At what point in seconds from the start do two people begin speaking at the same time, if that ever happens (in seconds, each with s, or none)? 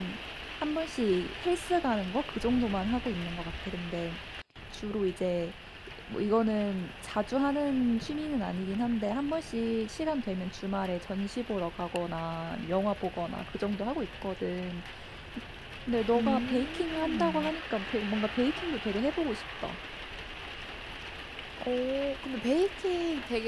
16.1 s